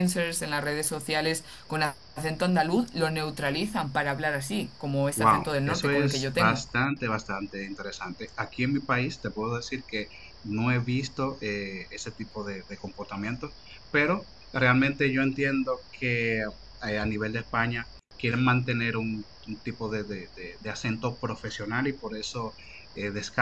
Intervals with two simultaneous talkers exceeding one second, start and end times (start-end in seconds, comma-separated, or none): 5.2-6.6